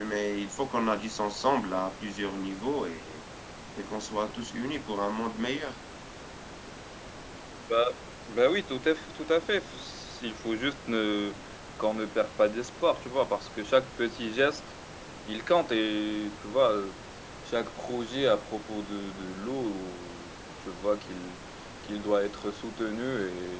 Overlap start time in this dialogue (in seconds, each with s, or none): none